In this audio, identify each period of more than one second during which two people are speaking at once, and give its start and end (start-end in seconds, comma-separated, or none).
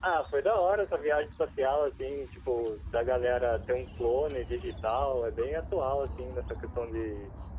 none